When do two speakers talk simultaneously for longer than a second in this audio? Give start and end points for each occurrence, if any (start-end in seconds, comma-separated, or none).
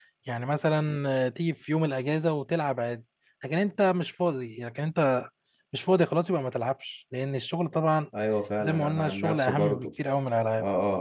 8.6-9.9